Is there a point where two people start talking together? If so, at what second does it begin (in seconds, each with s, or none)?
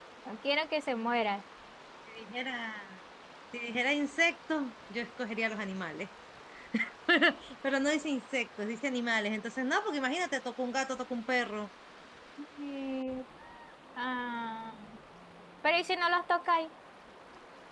none